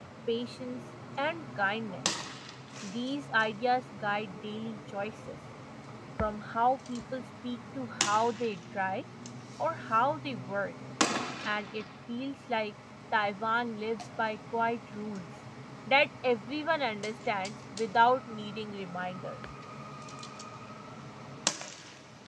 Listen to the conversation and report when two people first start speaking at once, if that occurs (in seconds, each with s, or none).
none